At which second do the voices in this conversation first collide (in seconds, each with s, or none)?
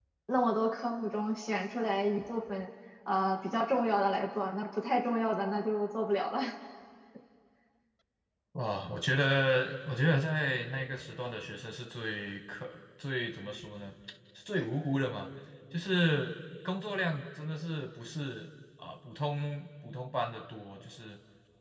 none